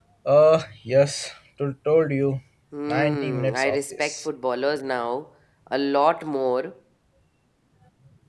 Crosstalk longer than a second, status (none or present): present